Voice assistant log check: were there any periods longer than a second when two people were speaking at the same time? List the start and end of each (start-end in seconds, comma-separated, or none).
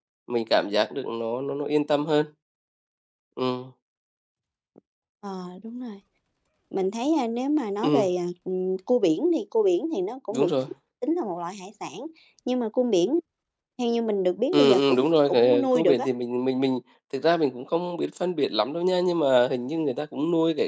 14.5-16.1